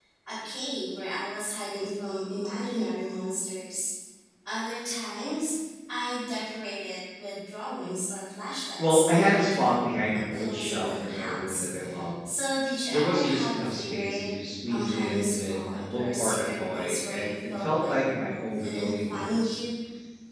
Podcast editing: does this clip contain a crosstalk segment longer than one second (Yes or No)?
Yes